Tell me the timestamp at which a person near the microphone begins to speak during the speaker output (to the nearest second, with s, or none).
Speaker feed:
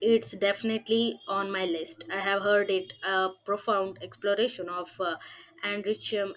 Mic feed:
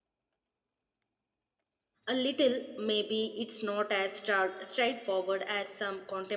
2 s